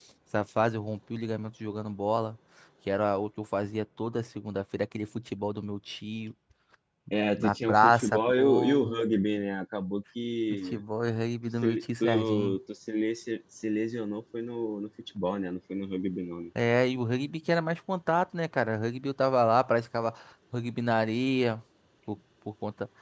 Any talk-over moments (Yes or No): Yes